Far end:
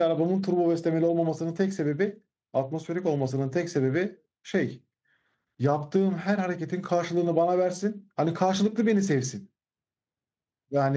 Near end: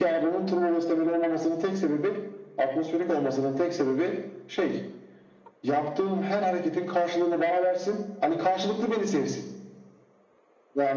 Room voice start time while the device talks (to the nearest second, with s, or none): none